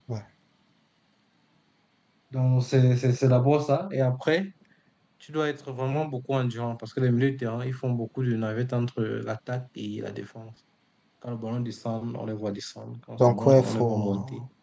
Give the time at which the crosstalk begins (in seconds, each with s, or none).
13.2 s